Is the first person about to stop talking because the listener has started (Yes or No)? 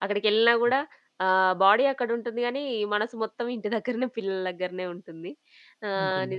No